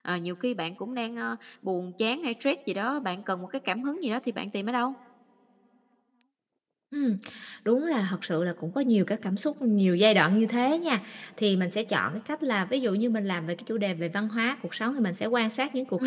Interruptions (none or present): none